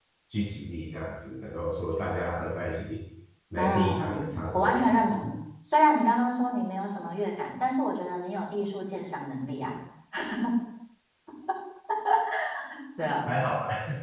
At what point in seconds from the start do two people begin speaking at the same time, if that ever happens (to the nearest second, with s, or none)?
4 s